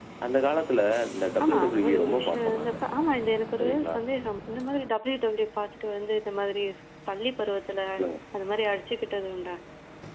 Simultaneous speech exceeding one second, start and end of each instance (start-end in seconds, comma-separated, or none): 1.4-2.8